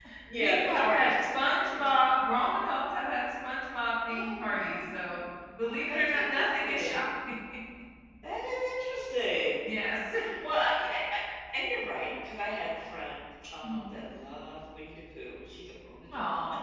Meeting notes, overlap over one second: present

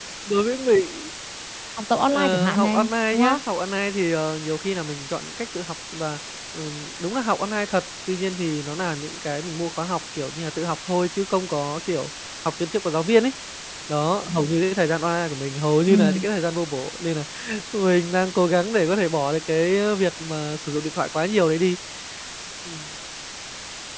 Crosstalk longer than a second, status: present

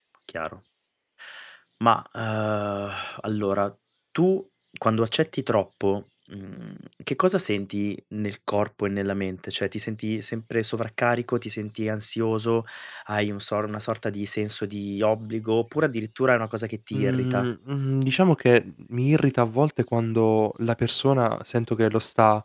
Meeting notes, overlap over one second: none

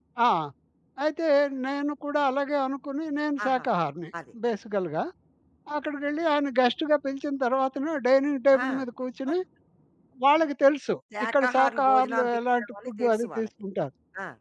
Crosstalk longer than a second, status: present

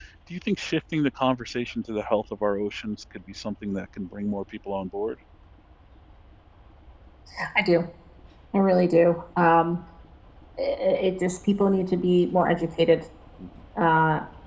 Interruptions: none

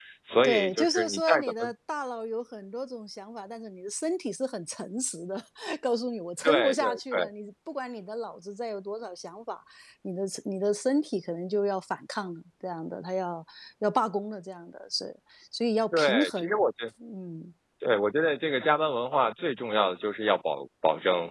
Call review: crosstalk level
present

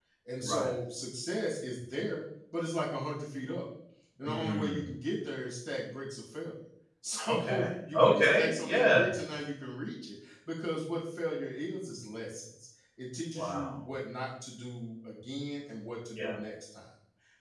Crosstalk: present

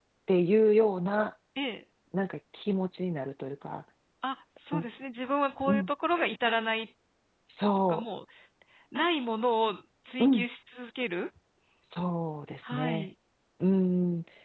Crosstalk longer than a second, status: none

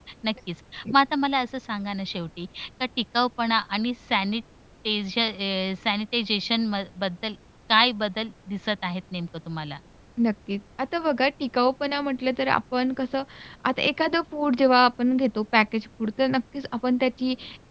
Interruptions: none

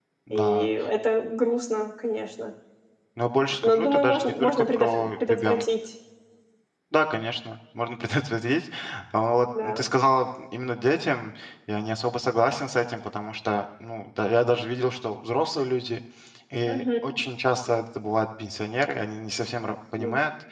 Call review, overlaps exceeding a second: present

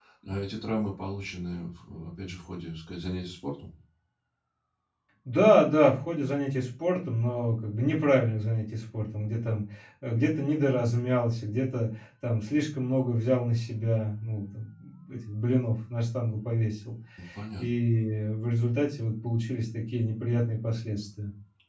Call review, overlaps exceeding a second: none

